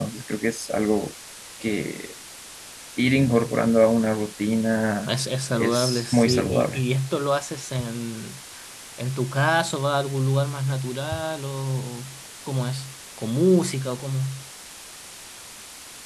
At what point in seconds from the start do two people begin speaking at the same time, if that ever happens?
5.5 s

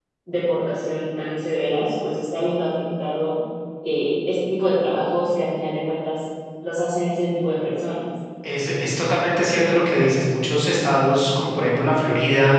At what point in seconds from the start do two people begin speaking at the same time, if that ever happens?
none

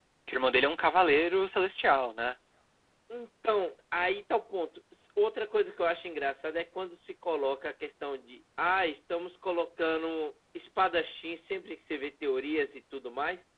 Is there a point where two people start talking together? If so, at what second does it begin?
none

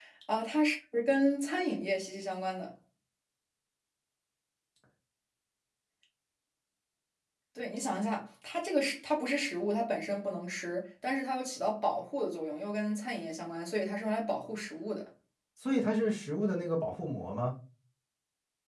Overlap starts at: none

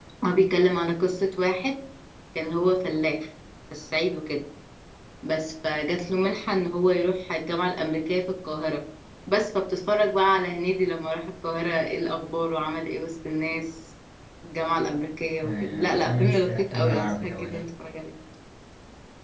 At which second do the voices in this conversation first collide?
15.4 s

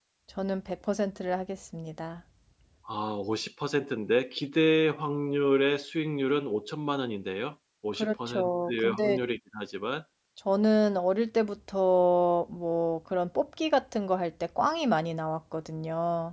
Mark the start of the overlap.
8.0 s

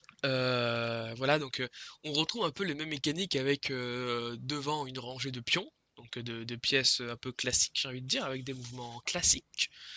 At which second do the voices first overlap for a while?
none

